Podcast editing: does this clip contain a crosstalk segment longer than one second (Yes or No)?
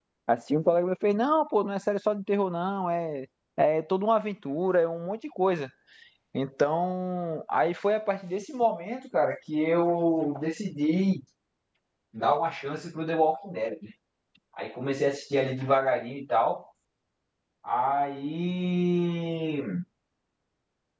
No